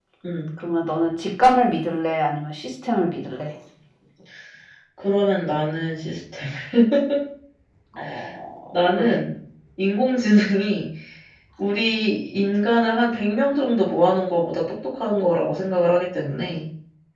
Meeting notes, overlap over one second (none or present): none